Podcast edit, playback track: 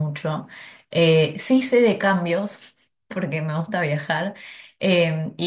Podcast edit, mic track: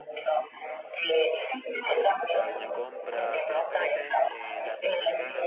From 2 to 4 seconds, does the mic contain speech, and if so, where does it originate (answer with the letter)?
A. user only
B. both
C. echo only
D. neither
B